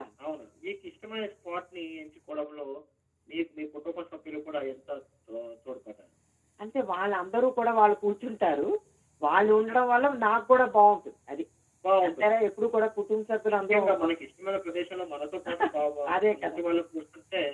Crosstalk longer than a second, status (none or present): none